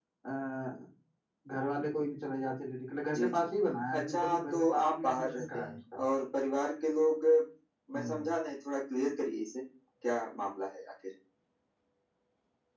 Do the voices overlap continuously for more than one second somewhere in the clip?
Yes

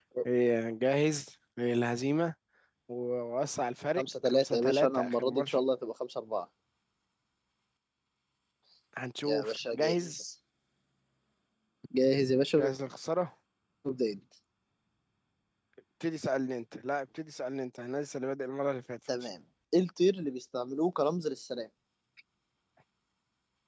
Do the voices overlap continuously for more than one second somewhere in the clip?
Yes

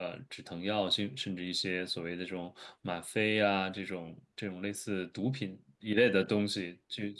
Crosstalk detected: No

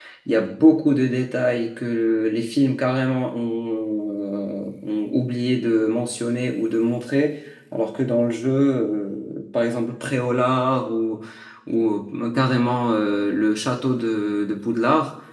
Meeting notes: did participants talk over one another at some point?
No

